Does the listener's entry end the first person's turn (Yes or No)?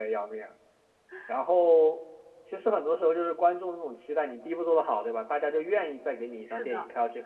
No